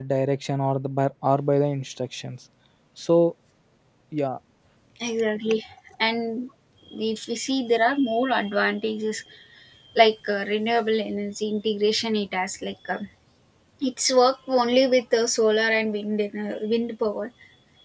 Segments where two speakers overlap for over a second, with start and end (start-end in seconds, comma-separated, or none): none